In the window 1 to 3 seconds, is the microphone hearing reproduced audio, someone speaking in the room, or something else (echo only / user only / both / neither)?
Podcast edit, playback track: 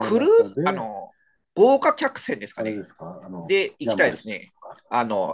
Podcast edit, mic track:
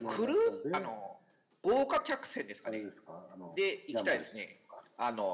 echo only